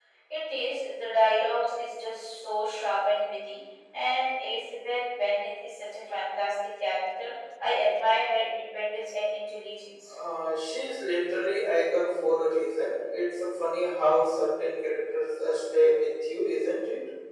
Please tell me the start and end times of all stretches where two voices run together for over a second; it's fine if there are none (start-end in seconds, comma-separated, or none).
none